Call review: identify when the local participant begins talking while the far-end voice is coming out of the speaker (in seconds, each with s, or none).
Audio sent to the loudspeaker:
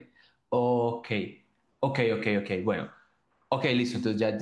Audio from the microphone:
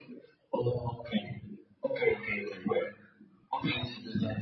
none